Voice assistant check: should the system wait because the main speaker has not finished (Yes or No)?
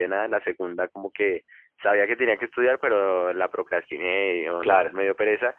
Yes